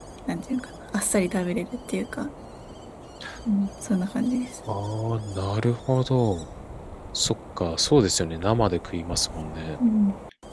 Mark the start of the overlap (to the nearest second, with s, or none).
none